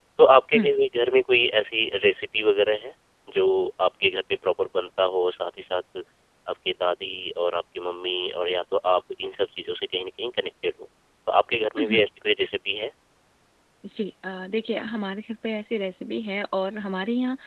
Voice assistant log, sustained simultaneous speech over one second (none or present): none